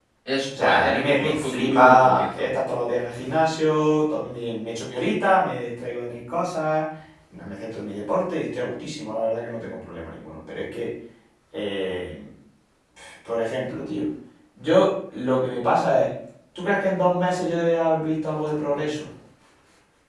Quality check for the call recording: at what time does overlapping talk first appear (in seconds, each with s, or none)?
0.6 s